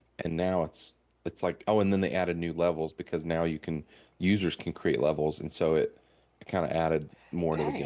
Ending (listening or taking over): taking over